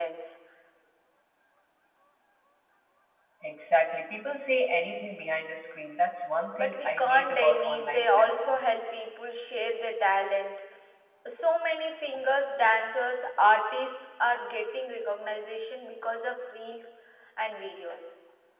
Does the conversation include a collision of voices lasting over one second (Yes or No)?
Yes